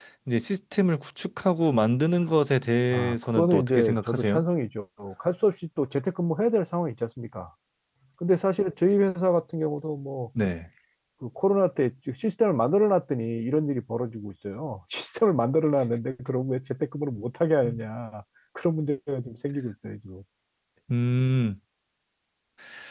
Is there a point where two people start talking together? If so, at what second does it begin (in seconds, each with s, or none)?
2.9 s